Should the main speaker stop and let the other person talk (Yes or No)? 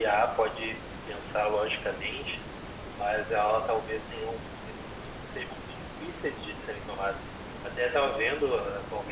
No